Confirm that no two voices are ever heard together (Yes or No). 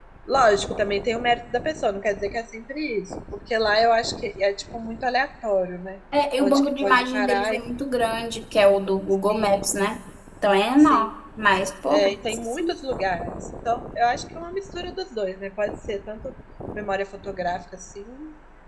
No